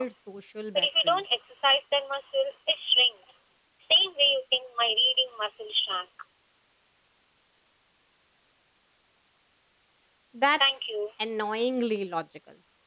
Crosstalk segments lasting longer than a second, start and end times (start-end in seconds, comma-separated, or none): none